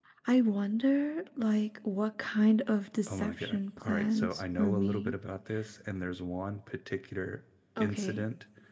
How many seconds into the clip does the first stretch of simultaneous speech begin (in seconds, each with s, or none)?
3.1 s